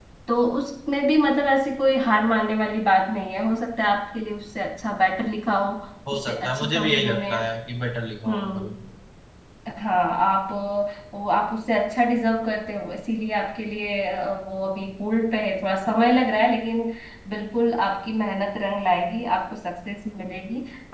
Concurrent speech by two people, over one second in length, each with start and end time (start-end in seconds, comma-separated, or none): 6.1-7.3